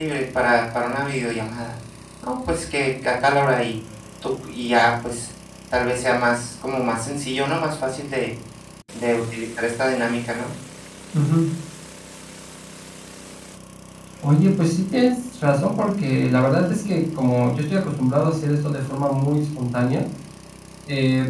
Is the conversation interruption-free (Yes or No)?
Yes